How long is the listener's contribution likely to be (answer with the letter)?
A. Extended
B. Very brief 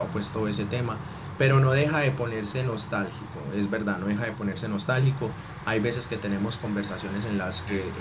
B